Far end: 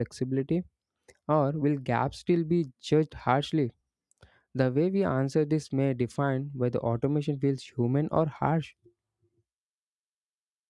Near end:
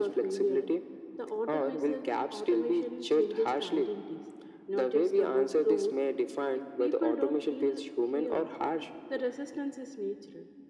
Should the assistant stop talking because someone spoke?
Yes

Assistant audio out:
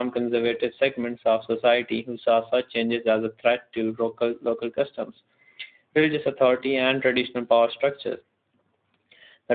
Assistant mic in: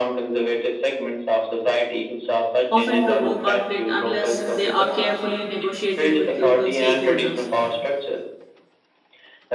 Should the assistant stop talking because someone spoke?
Yes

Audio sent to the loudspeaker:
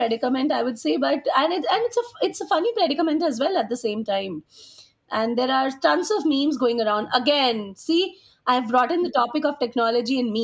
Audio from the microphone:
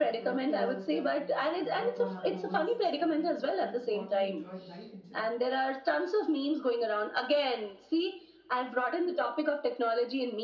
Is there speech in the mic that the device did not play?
Yes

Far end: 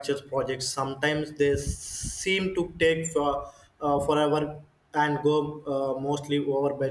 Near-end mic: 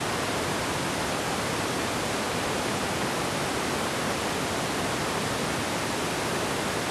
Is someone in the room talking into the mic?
No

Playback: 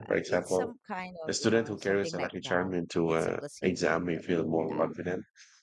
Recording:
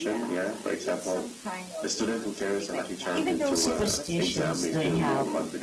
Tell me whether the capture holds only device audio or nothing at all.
No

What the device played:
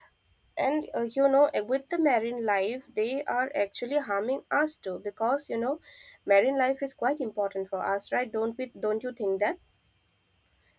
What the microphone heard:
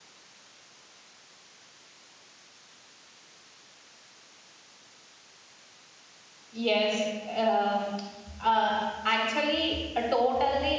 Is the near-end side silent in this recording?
No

